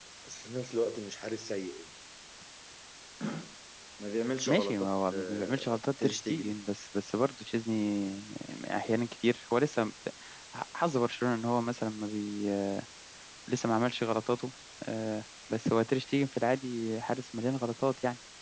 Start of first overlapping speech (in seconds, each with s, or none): 4.5 s